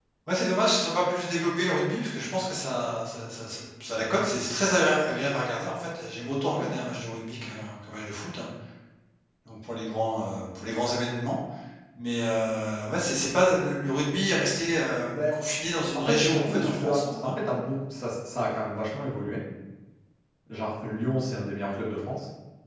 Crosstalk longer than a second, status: present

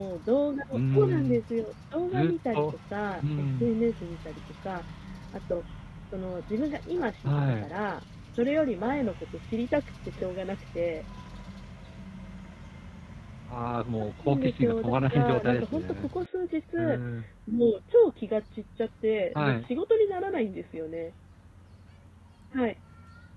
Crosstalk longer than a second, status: present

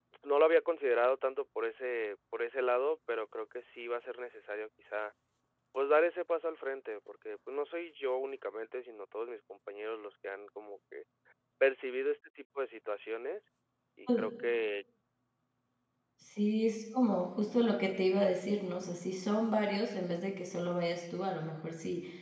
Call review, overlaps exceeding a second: none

